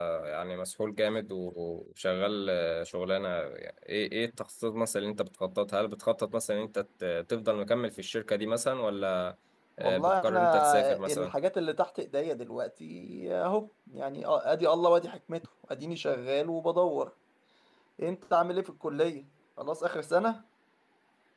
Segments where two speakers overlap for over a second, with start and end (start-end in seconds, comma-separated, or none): 9.8-11.3